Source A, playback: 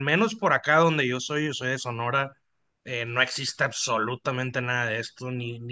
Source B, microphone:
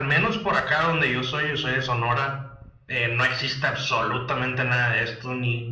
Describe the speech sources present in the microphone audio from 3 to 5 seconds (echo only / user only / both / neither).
echo only